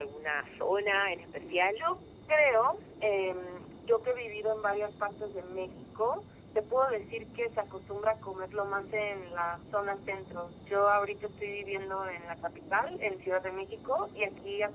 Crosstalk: none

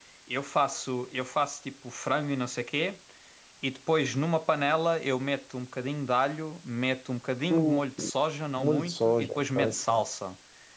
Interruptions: present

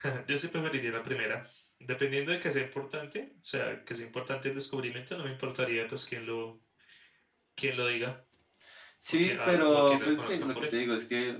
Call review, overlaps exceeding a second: present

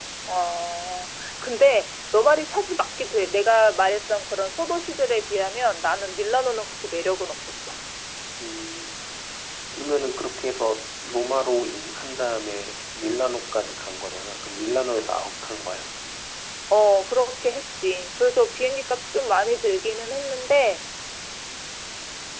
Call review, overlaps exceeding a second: none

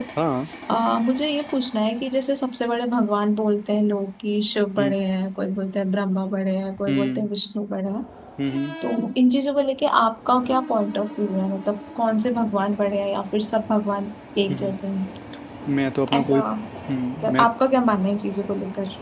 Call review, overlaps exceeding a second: none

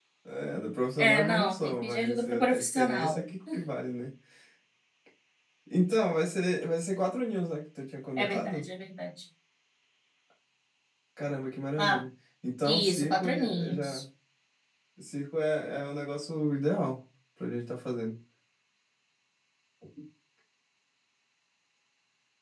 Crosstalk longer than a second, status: present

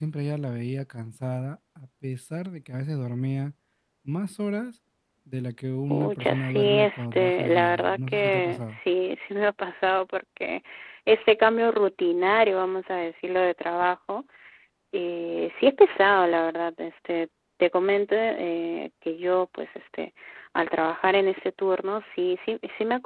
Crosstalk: present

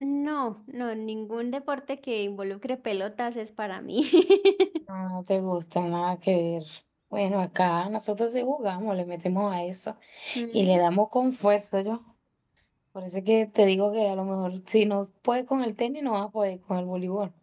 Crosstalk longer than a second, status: none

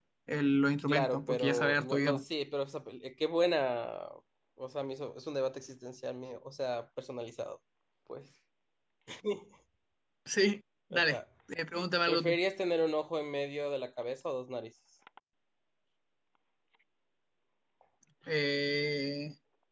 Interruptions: present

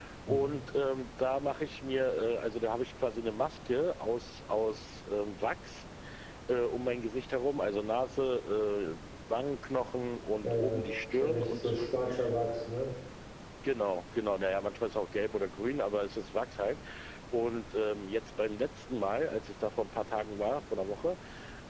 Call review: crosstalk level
present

